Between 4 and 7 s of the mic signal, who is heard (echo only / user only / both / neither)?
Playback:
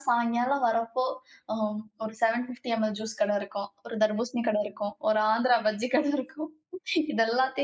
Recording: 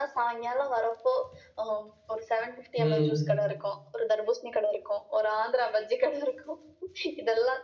echo only